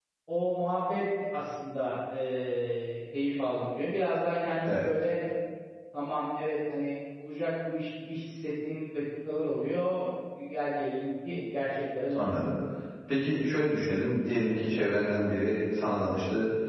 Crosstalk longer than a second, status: none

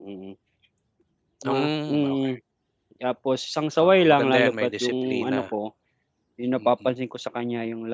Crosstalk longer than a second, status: present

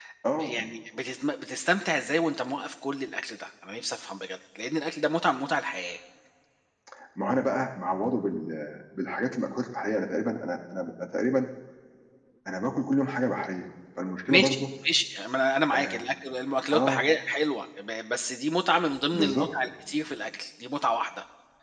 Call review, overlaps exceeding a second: none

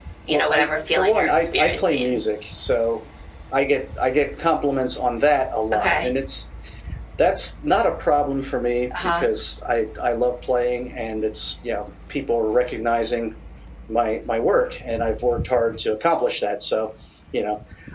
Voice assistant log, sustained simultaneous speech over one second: present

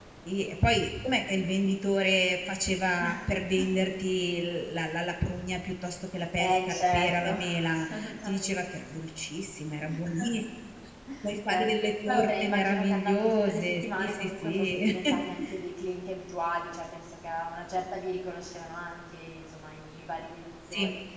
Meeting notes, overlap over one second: present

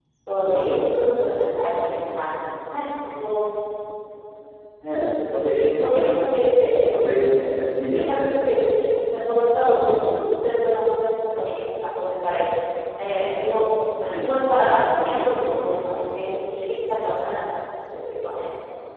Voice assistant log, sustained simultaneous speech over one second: none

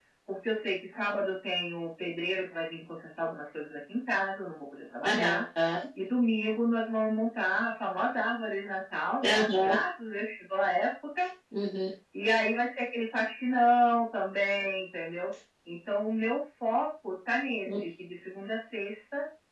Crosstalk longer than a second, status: none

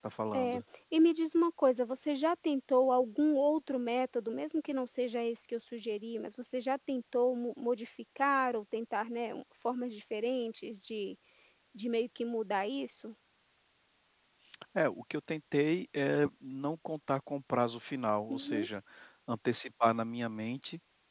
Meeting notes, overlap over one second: none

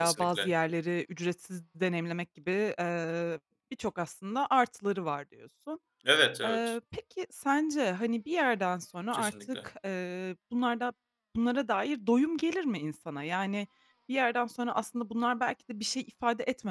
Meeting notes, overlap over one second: none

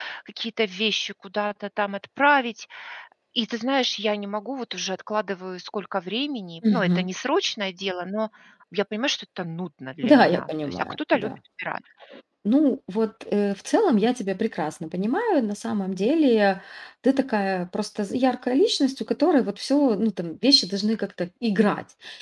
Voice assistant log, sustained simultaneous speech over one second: present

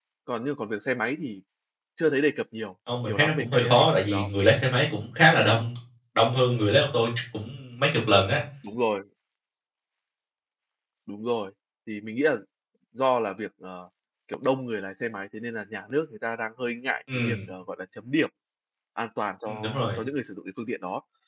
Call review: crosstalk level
present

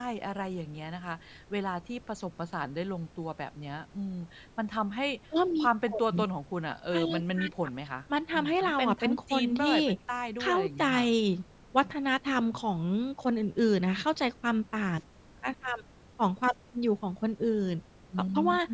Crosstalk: present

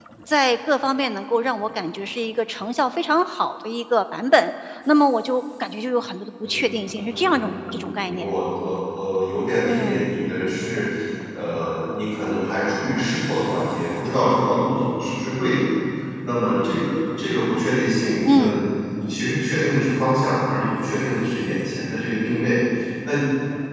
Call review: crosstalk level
present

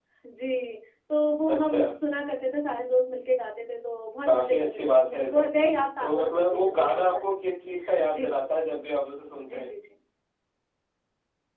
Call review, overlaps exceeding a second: present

